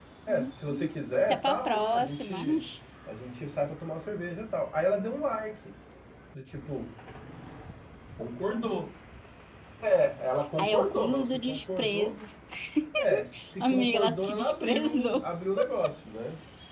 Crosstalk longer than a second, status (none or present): present